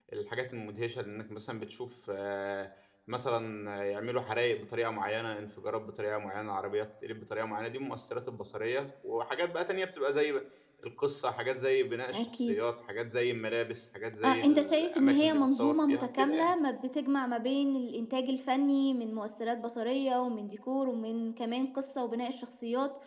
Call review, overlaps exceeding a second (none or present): present